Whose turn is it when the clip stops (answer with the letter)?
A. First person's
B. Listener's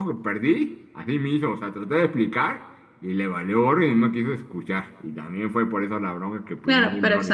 B